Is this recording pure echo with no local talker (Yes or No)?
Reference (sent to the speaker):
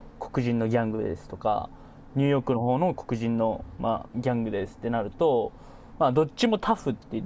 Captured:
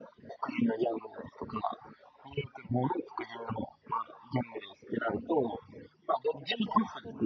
No